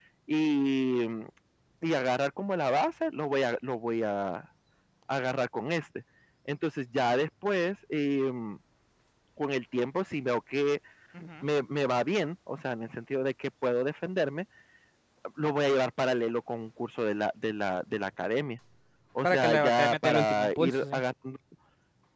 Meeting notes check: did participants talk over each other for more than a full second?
Yes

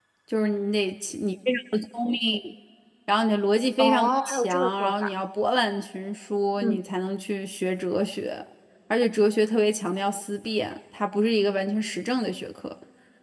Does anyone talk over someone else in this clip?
Yes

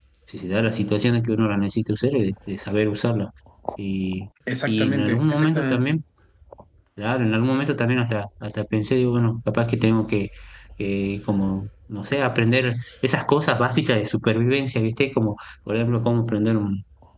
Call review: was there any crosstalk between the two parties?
Yes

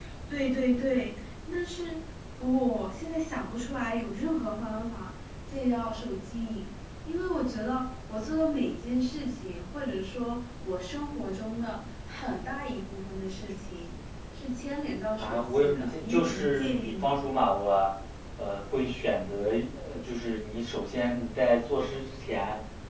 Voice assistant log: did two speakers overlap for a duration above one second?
Yes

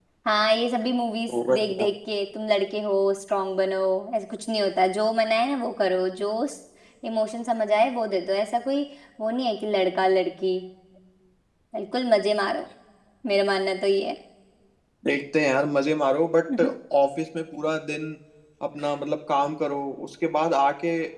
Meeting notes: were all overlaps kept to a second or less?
Yes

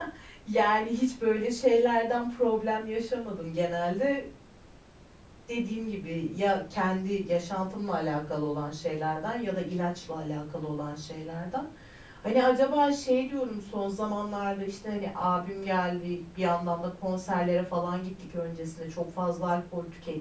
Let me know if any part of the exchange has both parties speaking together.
No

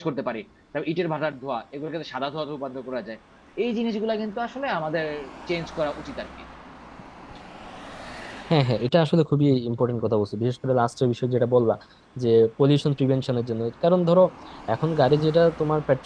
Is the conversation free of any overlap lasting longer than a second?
Yes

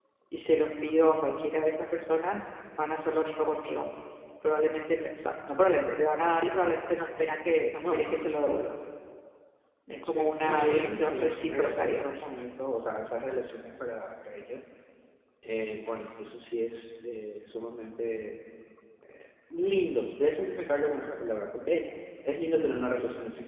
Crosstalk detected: Yes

